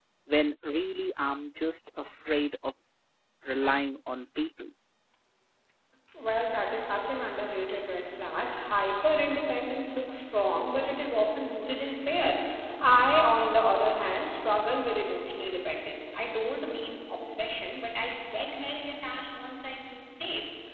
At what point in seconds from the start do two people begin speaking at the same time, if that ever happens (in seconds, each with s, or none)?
none